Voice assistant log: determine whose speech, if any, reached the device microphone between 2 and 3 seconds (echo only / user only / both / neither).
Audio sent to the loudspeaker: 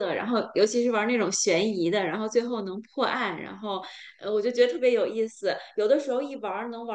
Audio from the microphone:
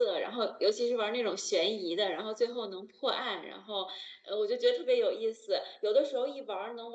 echo only